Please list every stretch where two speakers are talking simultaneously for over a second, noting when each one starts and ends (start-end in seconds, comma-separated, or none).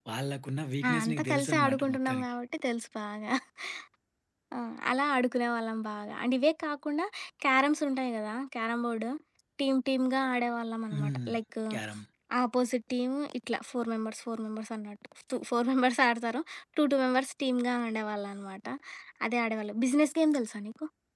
1.0-2.2